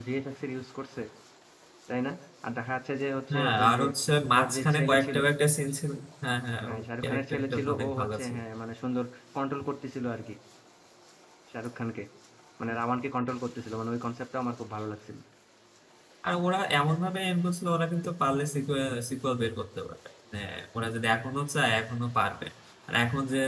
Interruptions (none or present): present